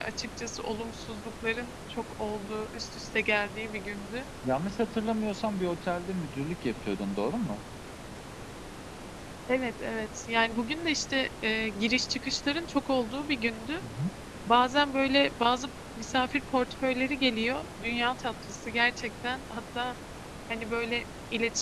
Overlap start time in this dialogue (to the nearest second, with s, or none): none